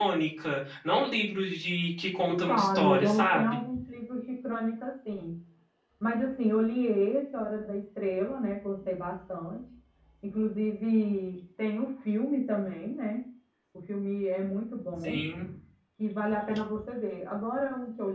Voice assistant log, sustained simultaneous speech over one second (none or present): present